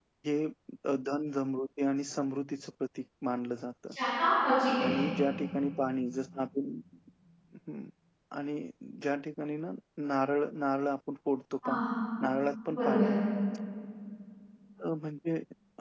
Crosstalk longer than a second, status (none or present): none